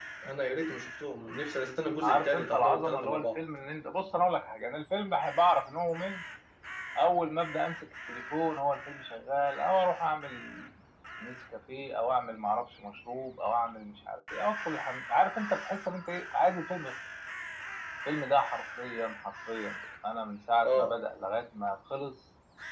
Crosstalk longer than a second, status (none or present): present